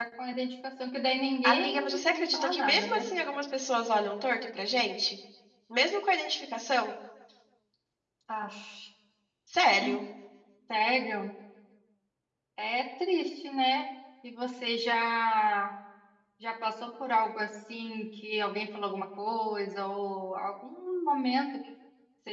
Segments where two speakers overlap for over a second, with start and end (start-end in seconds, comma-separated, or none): 1.4-3.0